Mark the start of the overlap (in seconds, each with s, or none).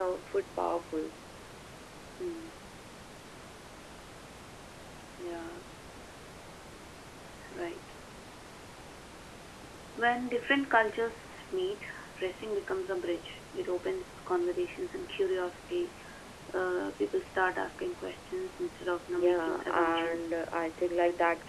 19.1 s